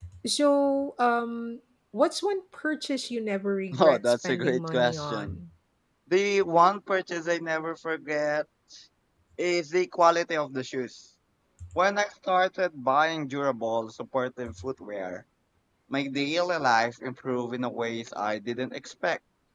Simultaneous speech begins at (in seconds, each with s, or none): 3.7 s